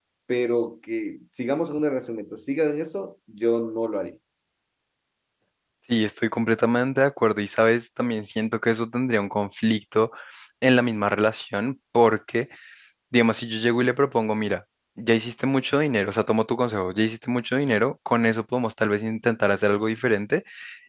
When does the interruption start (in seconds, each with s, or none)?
none